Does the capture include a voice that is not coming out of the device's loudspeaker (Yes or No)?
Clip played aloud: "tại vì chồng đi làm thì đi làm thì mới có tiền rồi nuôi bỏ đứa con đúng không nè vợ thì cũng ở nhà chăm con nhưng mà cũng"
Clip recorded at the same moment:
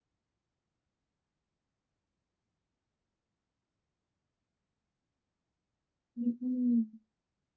Yes